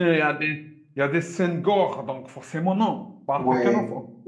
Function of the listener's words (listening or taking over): taking over